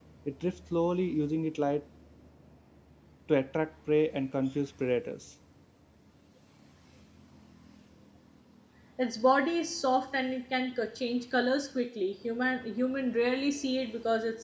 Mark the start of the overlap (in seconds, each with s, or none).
none